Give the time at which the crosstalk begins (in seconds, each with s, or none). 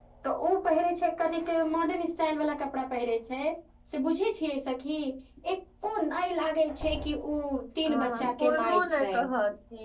7.9 s